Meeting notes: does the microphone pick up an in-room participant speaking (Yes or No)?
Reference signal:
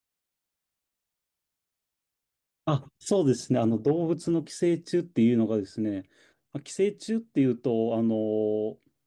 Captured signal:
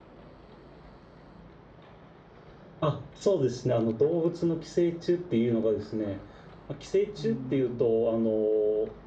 Yes